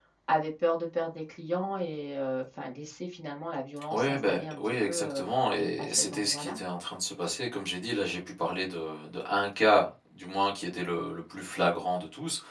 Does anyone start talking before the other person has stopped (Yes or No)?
Yes